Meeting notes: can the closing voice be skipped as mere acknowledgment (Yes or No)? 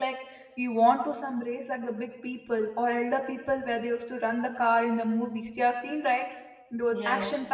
Yes